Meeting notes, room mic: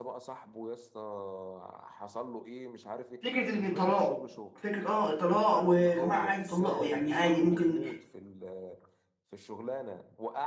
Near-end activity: present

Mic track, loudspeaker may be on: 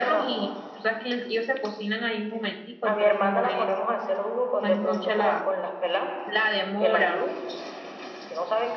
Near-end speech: present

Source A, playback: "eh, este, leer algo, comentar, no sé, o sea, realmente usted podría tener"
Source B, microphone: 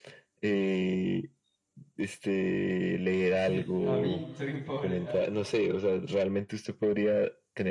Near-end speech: present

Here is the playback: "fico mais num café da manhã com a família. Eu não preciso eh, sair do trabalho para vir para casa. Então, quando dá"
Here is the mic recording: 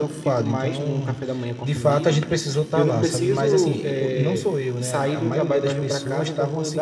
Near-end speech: present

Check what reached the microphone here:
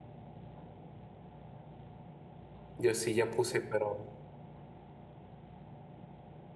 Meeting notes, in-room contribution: present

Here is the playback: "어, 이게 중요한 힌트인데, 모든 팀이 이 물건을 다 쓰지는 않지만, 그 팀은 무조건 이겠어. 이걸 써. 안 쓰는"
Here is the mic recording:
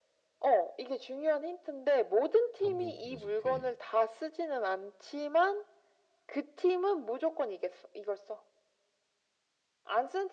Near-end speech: present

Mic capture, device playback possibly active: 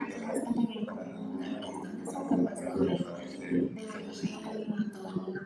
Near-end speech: none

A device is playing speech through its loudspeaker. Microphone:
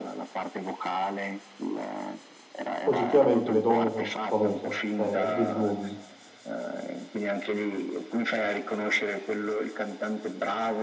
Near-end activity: present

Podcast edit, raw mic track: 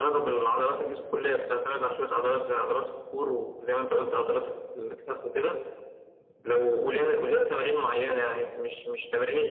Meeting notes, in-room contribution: none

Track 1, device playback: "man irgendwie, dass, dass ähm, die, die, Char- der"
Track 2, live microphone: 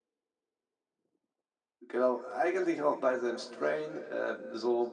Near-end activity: present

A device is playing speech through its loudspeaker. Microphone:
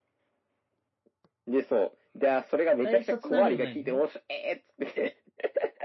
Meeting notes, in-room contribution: present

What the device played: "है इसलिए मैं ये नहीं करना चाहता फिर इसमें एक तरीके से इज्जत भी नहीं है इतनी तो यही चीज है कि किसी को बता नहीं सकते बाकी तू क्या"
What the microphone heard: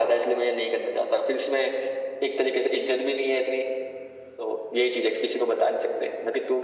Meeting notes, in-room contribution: none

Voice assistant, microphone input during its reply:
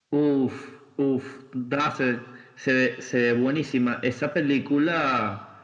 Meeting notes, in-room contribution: none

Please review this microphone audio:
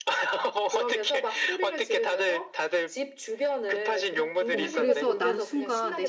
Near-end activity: present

